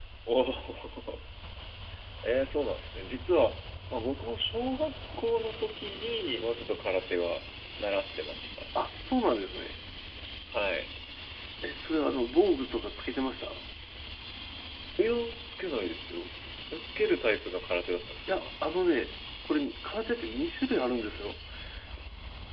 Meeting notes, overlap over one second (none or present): none